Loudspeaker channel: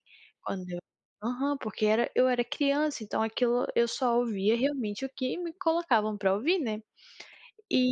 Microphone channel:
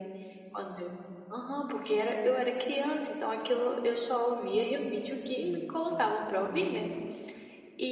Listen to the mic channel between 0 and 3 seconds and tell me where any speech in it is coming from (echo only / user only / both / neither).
echo only